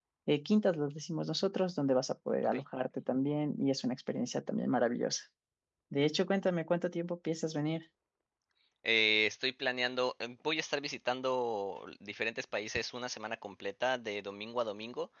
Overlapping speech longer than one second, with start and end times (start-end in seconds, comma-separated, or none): none